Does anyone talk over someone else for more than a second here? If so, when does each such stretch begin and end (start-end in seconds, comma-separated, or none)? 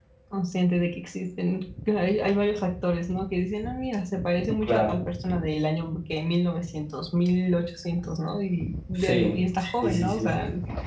9.0-10.3